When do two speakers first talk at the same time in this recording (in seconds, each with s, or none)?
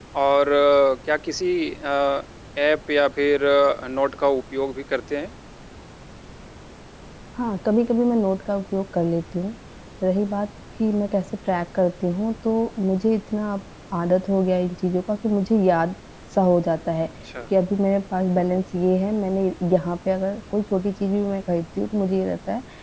none